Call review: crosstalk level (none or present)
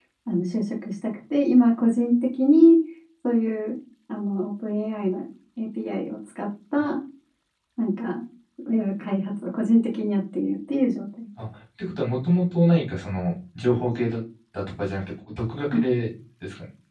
none